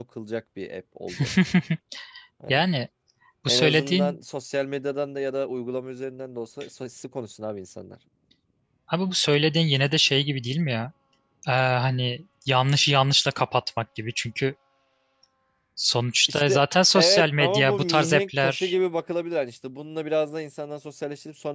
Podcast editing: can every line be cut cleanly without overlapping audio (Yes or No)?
No